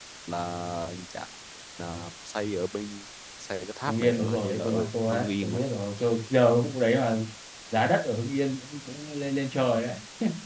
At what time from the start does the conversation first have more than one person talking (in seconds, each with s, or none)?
3.9 s